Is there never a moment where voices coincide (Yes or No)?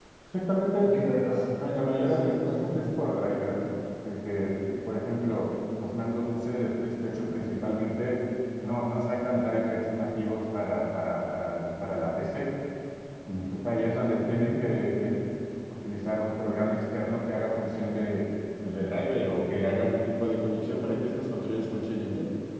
No